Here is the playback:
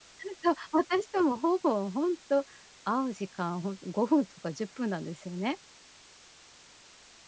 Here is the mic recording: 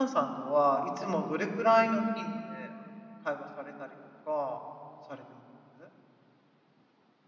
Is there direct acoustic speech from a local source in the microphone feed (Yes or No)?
Yes